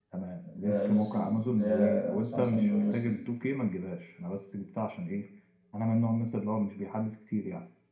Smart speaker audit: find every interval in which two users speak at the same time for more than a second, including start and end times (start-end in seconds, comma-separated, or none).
0.5-3.2